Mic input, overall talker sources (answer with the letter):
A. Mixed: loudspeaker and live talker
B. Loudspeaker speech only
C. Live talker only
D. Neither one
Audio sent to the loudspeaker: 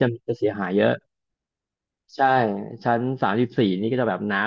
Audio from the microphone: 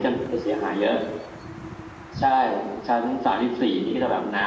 B